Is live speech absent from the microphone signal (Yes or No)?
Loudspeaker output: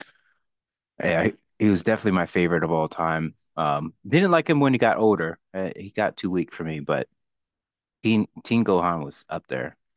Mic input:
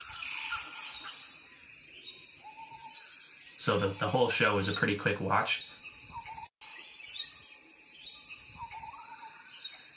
No